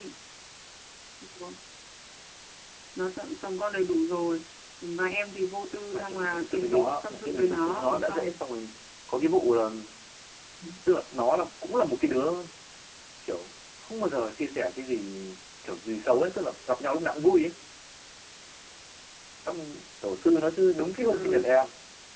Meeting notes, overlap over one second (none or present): present